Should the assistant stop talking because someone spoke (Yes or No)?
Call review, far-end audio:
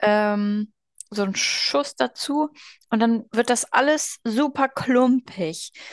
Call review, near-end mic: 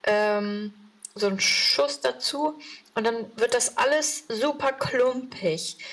No